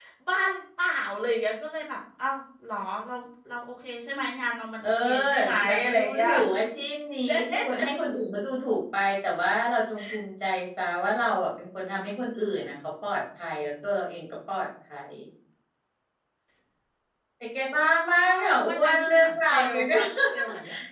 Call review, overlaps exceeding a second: present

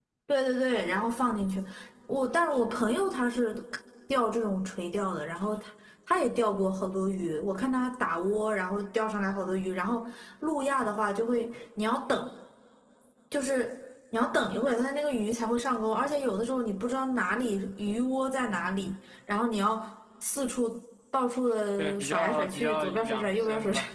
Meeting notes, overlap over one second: present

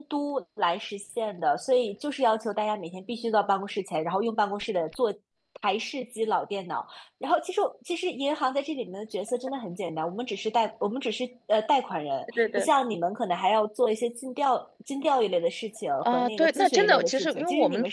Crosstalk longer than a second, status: present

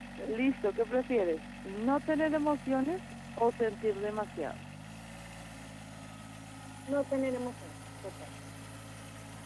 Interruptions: none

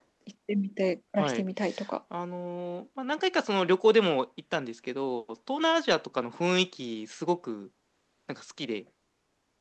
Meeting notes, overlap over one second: none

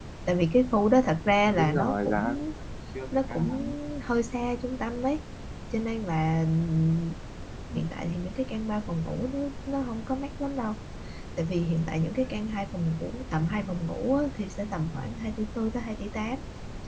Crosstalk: present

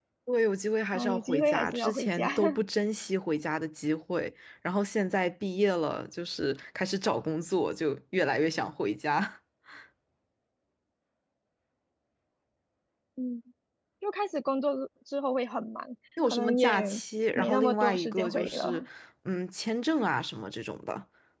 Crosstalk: present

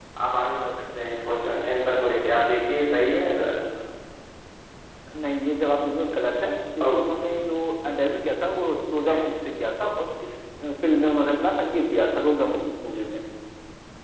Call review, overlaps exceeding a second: none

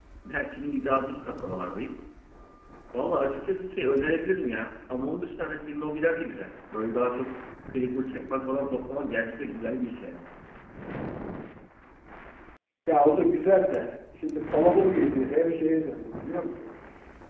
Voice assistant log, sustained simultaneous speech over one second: none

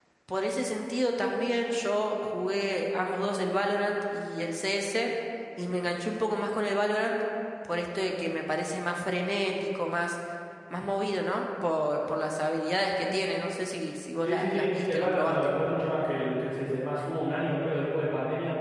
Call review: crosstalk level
present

